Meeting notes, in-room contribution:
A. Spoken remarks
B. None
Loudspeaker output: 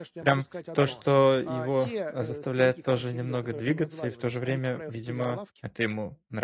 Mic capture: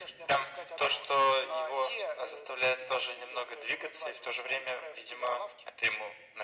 B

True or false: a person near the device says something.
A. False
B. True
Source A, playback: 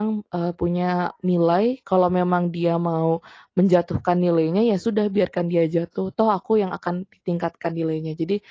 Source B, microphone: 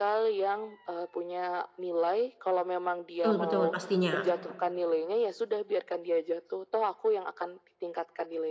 B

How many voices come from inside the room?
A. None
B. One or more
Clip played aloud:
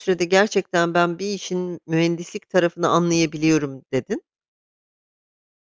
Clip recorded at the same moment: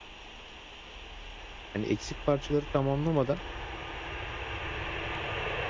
B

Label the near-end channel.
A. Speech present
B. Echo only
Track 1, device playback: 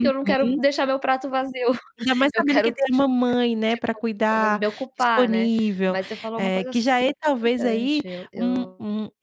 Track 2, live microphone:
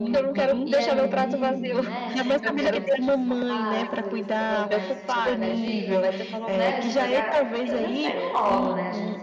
A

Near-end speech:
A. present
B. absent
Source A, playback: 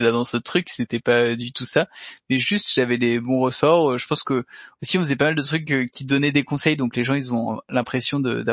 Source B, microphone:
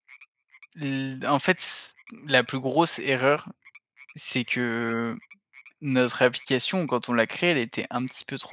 A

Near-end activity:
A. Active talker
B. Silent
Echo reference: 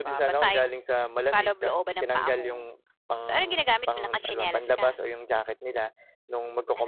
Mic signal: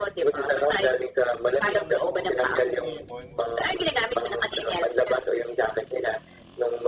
A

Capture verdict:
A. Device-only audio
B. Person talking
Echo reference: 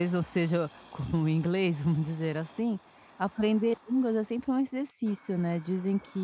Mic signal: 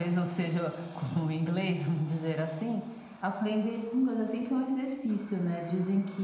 A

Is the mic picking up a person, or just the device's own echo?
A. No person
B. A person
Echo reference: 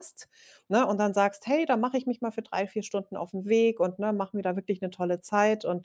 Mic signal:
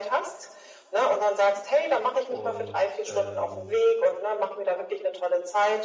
B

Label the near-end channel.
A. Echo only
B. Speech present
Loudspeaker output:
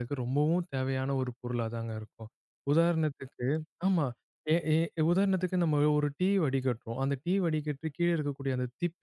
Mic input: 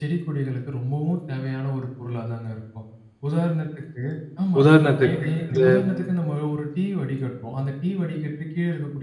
B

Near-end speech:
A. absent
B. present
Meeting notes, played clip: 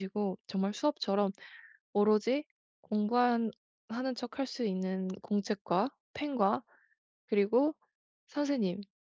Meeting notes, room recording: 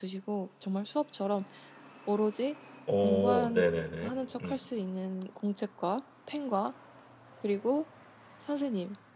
B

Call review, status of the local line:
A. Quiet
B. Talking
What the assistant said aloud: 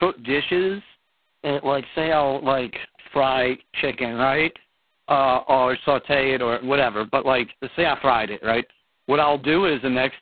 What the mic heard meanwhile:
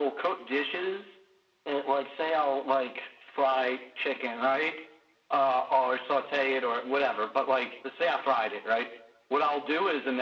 A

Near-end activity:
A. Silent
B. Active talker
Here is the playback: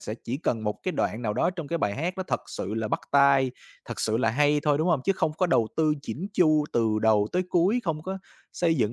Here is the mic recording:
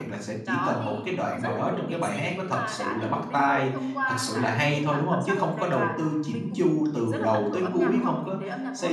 B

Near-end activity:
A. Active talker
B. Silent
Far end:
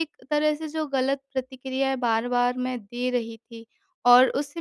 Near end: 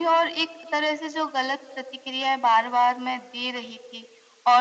B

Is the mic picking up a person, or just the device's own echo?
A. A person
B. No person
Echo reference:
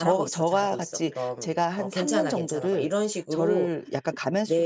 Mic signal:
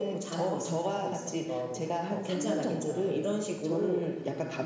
B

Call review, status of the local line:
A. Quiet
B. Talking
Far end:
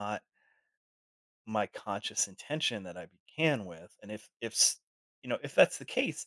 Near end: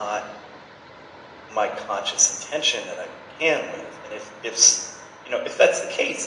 A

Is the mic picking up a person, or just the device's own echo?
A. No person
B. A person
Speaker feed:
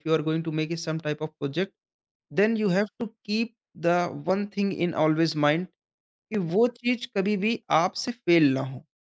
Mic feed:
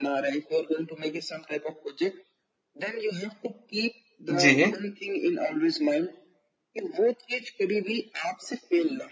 B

